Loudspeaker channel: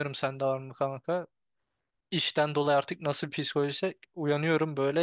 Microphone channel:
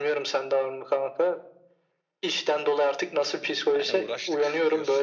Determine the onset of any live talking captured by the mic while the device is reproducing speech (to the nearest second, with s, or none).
4 s